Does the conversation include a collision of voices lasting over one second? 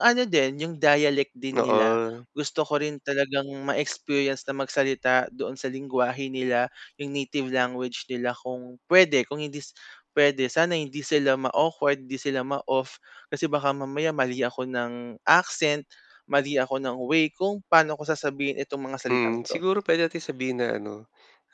No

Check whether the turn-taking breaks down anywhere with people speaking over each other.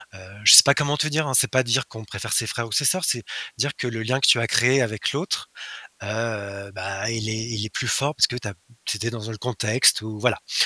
No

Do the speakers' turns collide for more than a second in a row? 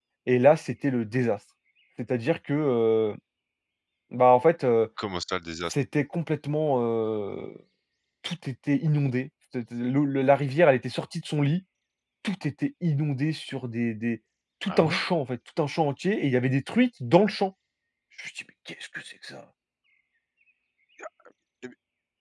No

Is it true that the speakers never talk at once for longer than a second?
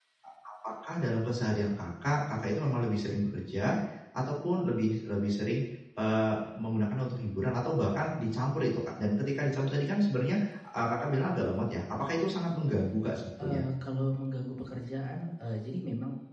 Yes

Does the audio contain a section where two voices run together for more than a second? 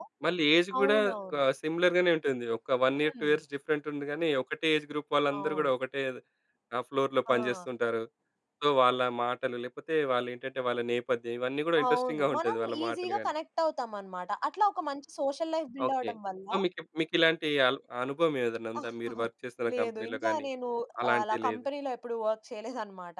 Yes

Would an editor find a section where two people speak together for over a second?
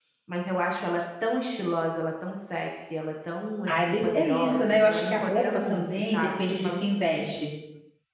Yes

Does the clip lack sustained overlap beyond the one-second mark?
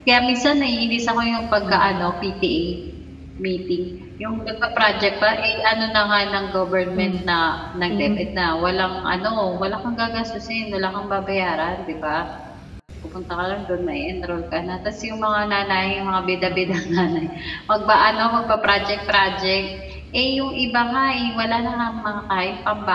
Yes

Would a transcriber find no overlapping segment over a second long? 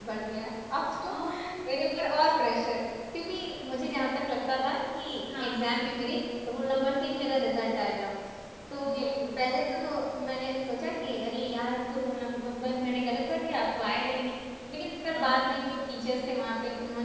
Yes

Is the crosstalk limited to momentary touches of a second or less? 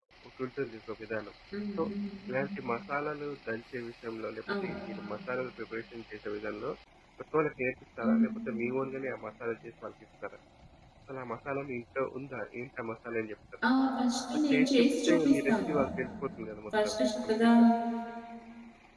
No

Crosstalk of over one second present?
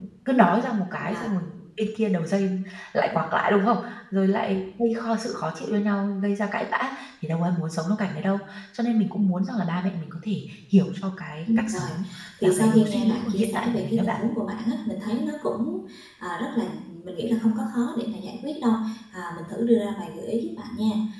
Yes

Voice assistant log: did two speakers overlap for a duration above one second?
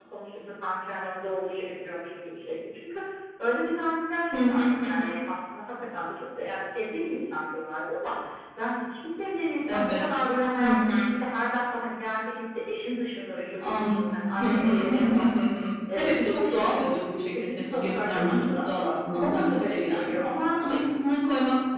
Yes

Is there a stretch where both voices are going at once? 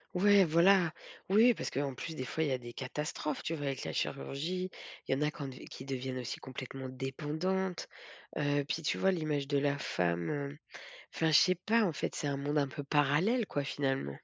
No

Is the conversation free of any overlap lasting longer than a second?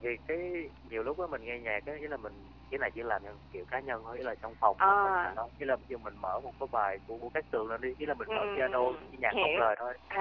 No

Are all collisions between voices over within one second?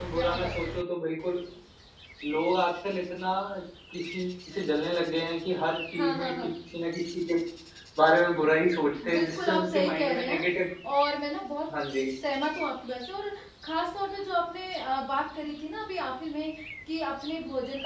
No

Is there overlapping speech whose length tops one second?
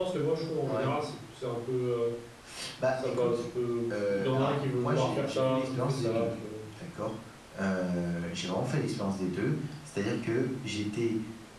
Yes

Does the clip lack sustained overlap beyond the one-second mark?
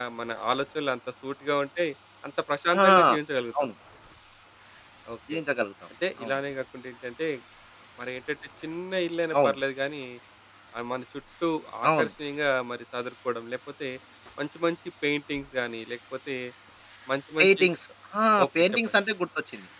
Yes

